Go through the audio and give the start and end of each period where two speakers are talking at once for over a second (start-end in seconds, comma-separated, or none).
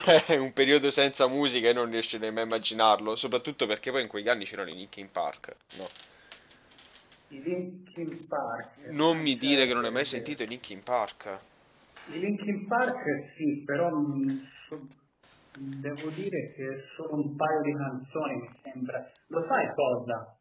8.9-10.4